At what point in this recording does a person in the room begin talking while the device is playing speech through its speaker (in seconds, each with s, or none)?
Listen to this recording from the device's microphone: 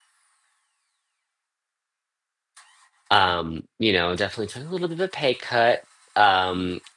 3.1 s